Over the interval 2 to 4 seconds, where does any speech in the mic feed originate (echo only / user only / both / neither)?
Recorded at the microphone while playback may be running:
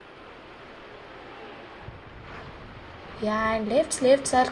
user only